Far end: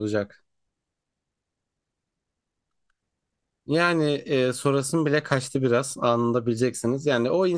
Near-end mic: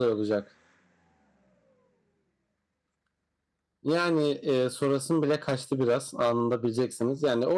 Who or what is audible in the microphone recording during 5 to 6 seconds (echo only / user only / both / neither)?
echo only